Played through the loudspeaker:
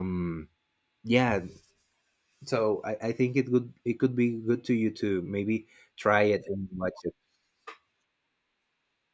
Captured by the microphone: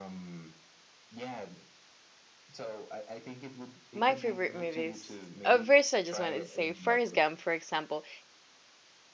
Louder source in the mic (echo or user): user